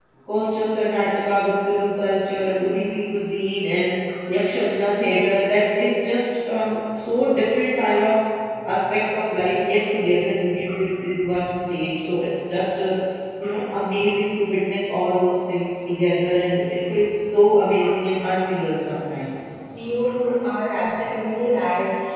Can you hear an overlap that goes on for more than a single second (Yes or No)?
No